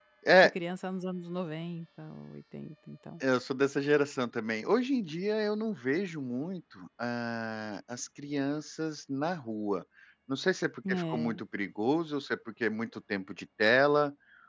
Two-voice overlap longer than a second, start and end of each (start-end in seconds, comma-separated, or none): none